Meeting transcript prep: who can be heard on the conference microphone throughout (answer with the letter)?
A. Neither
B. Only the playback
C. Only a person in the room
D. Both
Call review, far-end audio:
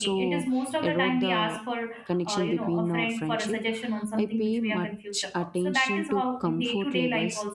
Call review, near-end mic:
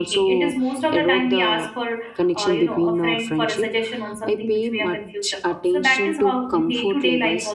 B